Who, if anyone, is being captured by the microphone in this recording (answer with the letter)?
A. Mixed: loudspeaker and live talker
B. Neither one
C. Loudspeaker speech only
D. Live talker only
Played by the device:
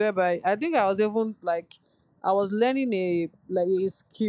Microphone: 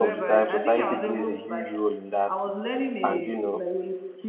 A